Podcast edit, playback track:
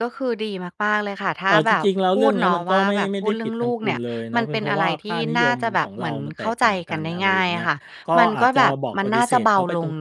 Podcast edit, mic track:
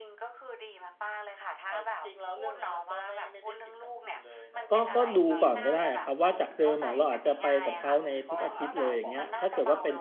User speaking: Yes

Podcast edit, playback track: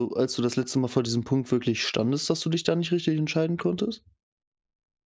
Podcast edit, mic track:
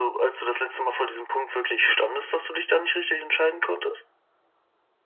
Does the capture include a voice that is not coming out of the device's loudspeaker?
No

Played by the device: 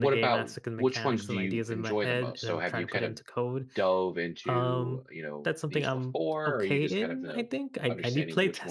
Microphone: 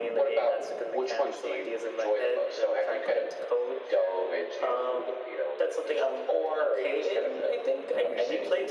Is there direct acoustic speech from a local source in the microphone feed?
No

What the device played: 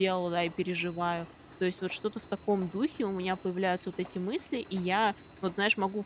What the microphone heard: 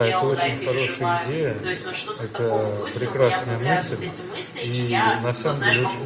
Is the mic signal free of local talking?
No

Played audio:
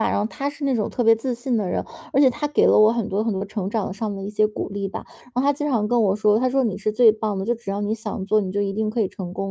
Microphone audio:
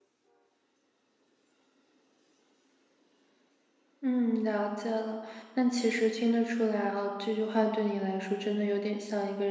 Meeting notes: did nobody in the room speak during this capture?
No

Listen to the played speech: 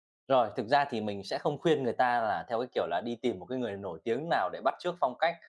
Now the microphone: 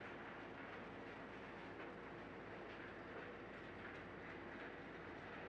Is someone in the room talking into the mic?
No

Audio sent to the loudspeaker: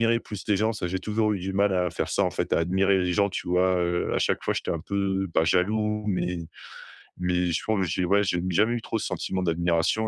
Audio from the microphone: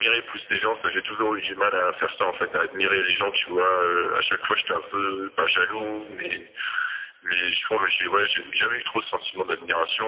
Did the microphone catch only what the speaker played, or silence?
Yes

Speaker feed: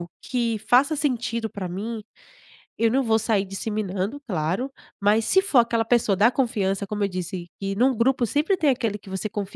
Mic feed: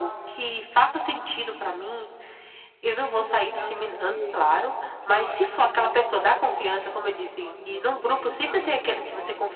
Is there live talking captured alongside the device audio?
Yes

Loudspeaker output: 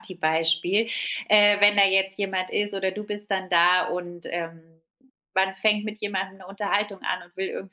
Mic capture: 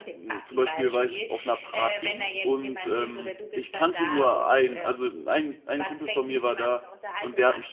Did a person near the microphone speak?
Yes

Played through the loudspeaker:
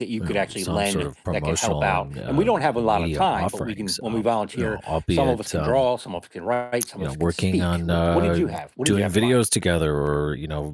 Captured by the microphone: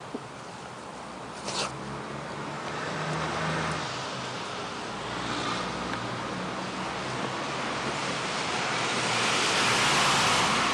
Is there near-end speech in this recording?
No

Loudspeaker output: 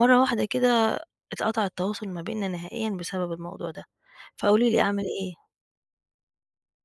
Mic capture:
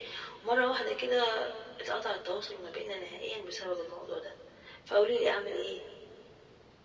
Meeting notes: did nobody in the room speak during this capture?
Yes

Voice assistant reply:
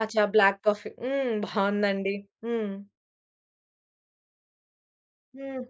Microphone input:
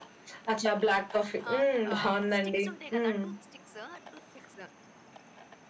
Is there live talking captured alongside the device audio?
Yes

